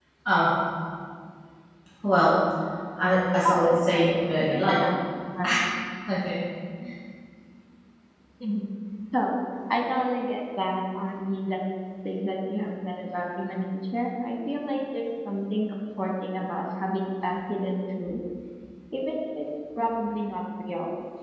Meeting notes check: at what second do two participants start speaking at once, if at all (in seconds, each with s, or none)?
3.5 s